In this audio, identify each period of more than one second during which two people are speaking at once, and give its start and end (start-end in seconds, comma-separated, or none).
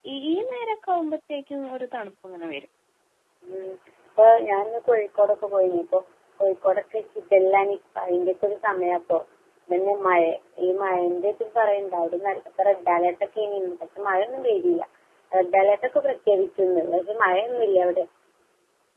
none